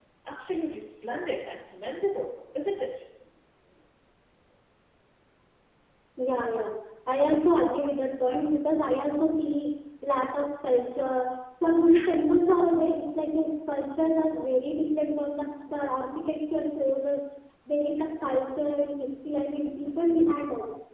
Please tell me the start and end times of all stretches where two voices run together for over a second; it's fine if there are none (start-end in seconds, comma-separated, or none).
none